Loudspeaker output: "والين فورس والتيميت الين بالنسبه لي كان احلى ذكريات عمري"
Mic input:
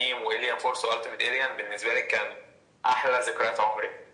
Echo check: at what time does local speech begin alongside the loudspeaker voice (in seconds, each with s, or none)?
none